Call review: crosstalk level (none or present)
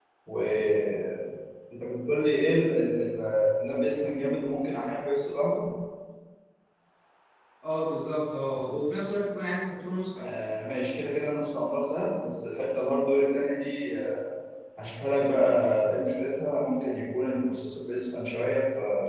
none